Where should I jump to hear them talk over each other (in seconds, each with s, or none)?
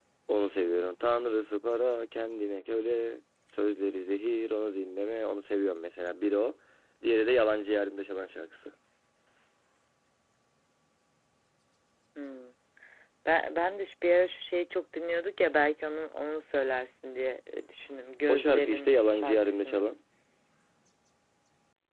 18.3 s